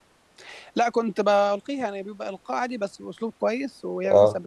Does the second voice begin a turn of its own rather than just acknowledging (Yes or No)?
No